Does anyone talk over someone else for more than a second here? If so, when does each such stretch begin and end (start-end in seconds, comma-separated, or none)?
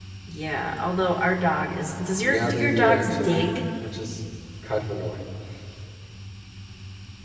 2.2-3.6